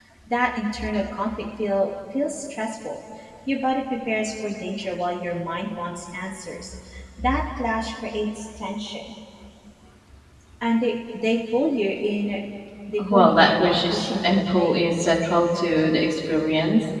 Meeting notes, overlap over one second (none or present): present